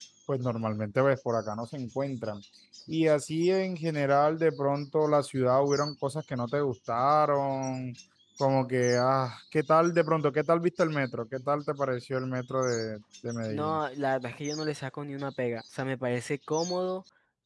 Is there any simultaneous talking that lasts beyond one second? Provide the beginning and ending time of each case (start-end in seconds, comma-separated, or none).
none